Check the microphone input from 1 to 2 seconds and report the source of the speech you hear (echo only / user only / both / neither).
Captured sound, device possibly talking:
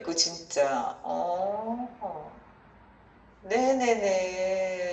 echo only